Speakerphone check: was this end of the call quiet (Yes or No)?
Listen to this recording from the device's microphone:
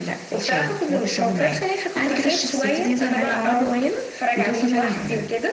Yes